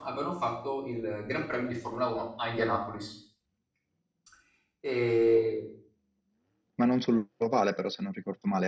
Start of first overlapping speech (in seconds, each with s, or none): none